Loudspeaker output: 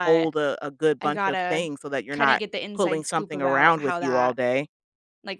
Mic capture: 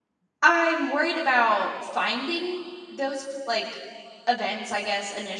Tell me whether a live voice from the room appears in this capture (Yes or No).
Yes